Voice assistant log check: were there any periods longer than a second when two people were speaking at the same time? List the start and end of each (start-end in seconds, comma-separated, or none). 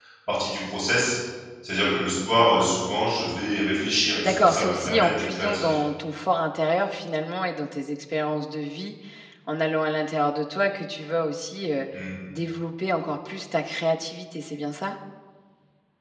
4.2-5.8